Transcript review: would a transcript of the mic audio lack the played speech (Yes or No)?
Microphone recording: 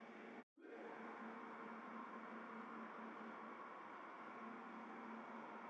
Yes